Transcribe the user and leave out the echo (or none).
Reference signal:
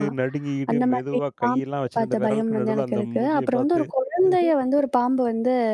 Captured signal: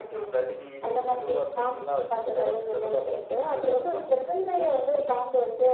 none